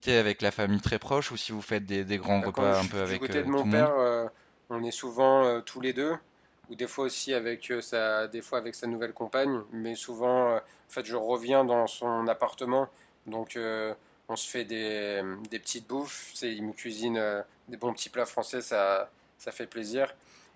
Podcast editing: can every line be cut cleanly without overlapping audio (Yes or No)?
No